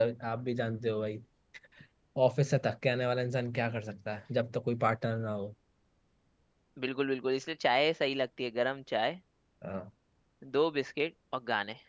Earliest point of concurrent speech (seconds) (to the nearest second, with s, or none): none